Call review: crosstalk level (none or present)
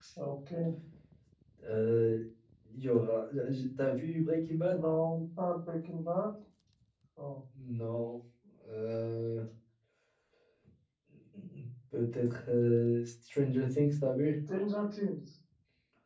none